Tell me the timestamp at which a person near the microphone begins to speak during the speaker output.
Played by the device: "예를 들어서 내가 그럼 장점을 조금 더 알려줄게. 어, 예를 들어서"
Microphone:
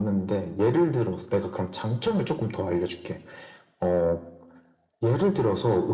none

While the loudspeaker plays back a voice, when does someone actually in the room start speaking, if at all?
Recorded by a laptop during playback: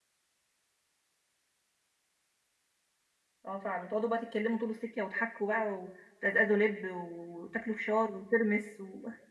3.5 s

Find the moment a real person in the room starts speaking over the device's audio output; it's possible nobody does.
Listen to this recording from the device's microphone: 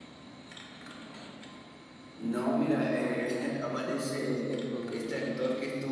3.0 s

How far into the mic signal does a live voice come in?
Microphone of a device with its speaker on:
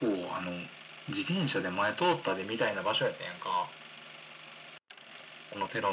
none

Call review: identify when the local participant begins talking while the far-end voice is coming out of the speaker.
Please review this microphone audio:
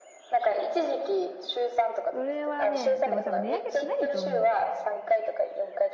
2.1 s

